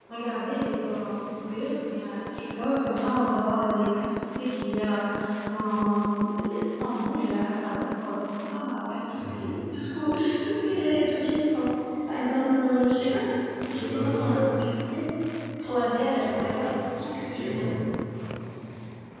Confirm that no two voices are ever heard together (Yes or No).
No